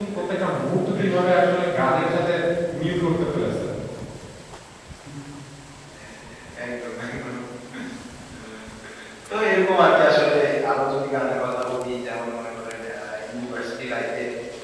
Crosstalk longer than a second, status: none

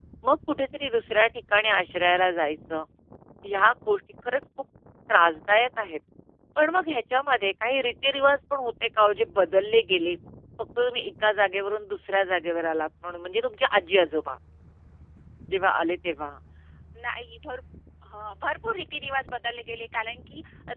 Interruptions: none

